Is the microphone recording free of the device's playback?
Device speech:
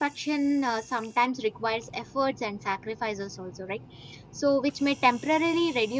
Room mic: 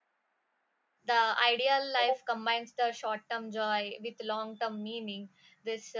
Yes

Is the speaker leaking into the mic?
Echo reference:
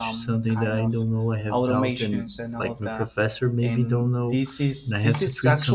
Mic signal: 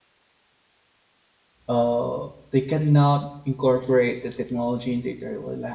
No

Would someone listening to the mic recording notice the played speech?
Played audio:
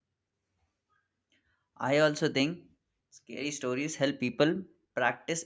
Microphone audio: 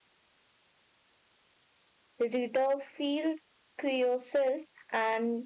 No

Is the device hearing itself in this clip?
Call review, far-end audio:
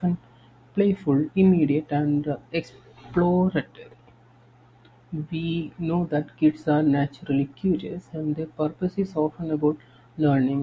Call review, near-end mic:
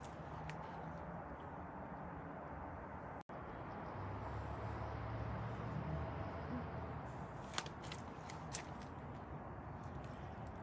No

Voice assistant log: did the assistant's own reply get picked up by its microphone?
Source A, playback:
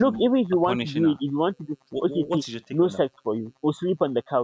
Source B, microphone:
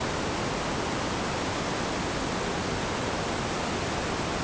No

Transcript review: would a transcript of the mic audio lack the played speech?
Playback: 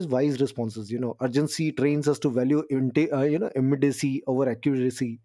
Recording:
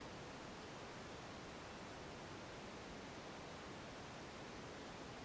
Yes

